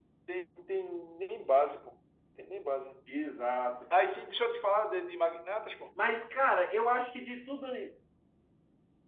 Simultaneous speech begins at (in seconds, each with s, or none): none